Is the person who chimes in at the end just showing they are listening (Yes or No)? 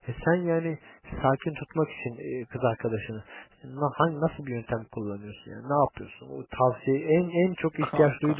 Yes